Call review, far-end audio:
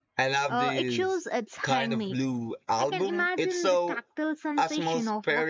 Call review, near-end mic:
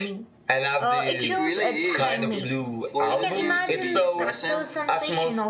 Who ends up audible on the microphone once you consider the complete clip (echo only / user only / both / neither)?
both